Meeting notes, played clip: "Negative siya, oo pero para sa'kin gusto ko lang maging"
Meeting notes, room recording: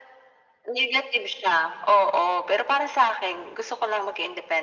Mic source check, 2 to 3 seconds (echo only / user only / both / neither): echo only